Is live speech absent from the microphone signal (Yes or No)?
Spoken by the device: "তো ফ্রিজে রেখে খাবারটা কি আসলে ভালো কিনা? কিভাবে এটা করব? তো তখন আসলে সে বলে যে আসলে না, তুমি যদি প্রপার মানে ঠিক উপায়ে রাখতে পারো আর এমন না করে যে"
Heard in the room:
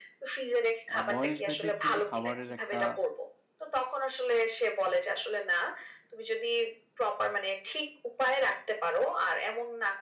No